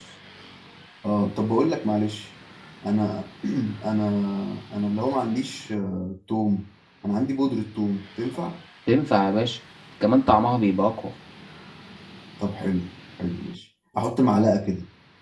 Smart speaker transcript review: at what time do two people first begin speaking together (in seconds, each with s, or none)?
none